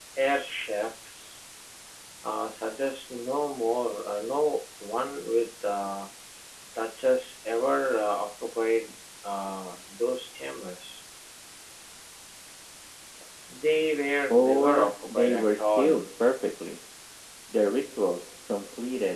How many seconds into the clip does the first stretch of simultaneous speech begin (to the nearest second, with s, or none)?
14 s